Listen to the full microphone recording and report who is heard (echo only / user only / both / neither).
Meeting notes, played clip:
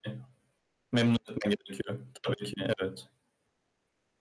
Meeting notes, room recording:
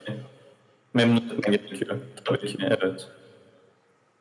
echo only